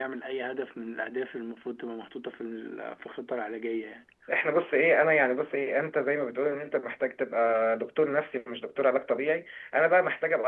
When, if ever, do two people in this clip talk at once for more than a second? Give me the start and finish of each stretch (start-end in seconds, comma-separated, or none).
none